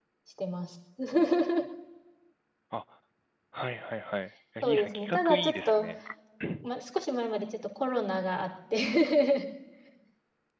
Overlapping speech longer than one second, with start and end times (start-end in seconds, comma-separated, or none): 4.6-5.8